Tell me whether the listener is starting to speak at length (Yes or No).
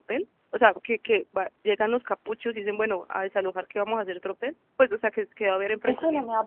Yes